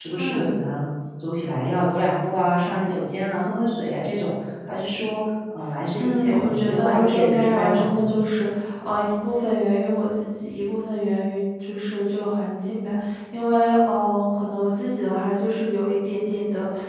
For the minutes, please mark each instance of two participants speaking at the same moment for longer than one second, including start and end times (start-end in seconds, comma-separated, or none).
6.0-8.1